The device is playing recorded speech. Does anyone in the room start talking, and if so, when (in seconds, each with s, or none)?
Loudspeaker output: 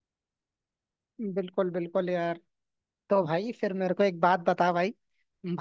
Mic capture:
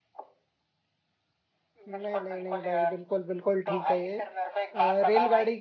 1.9 s